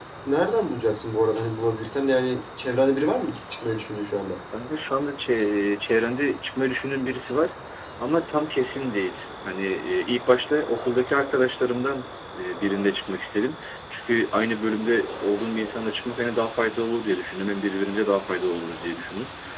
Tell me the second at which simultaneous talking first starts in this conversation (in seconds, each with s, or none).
none